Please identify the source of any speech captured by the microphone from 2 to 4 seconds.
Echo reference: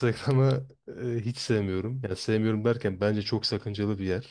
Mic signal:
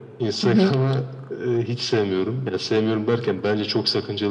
echo only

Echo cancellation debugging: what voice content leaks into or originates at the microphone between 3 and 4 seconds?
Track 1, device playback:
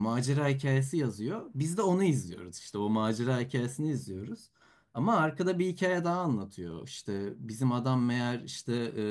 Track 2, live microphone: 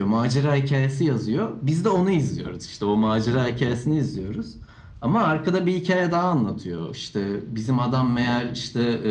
echo only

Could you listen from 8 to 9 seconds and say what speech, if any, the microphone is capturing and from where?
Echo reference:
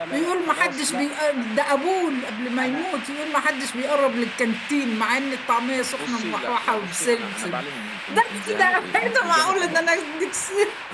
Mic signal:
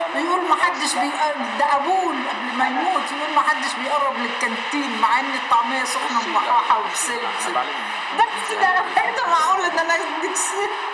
echo only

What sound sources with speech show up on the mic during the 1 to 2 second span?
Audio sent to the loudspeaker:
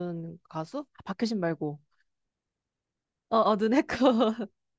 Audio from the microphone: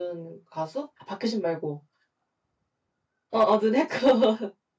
echo only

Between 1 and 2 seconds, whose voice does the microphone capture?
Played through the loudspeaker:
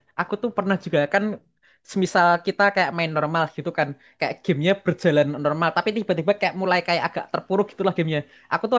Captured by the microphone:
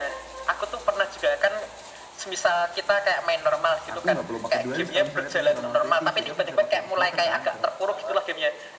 echo only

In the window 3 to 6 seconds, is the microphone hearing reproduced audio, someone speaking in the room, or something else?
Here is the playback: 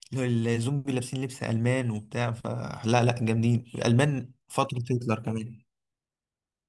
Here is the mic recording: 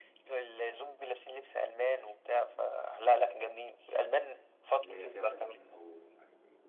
both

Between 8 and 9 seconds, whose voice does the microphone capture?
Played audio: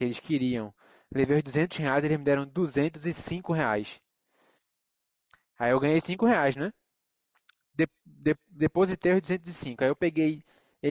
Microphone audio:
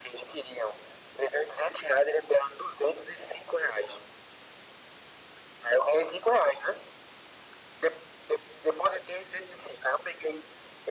echo only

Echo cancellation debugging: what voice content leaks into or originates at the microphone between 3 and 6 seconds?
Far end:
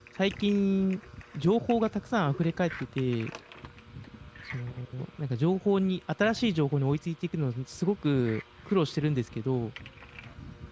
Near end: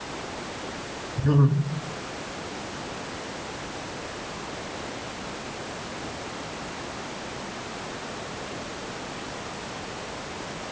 neither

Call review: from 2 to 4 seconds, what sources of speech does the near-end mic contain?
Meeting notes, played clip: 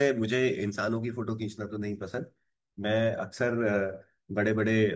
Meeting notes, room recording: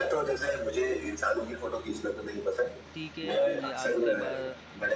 both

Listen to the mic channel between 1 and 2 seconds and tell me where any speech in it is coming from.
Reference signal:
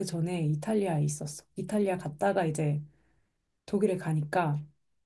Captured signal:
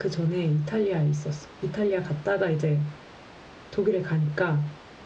echo only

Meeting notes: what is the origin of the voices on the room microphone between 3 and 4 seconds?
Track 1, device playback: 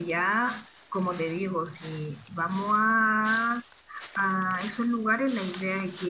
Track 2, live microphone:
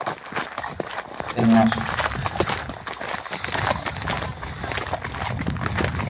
neither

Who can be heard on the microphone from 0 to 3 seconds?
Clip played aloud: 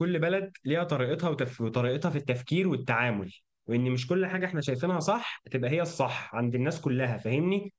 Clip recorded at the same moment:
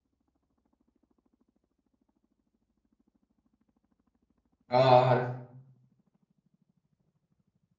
neither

